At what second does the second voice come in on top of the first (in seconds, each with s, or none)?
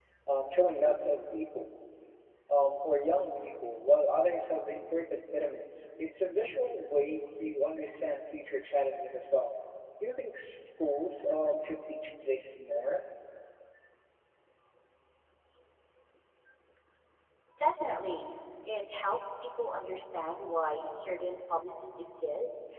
none